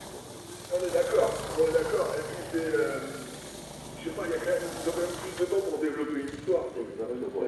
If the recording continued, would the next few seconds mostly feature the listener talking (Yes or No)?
Yes